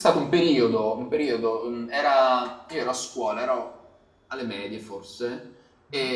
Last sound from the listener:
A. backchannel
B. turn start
A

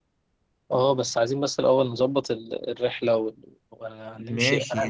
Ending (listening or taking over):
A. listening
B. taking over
B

